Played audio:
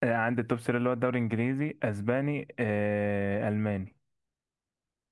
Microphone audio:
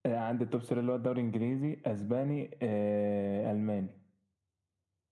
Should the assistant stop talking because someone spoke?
No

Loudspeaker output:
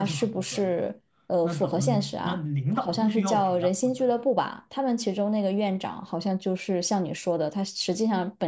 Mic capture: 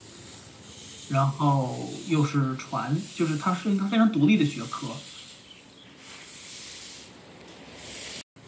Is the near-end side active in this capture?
Yes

